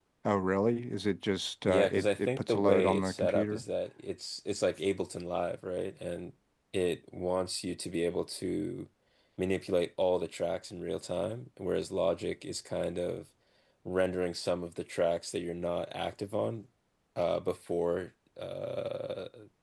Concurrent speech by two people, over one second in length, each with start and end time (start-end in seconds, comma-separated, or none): 1.7-3.6